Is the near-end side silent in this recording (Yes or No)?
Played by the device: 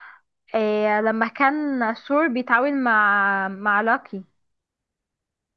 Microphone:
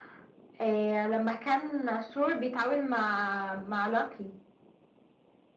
Yes